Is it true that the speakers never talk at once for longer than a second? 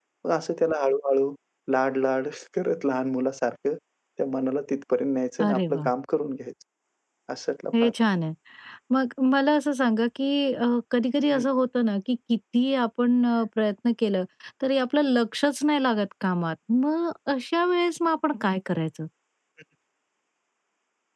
Yes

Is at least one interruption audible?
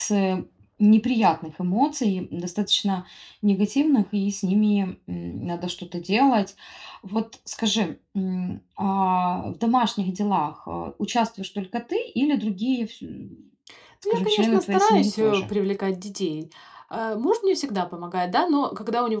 Yes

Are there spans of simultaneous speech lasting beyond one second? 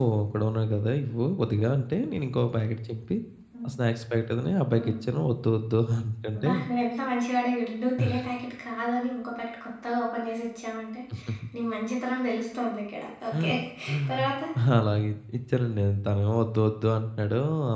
No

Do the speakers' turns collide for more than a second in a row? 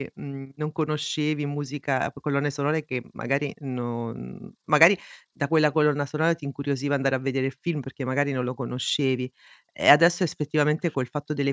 No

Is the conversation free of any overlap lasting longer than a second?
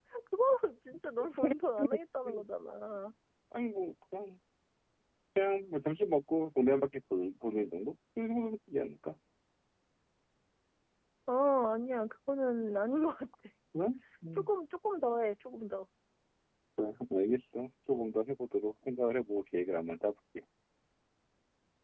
Yes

